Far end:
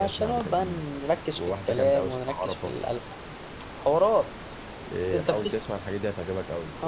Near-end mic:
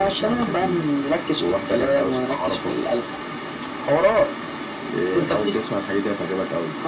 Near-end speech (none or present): none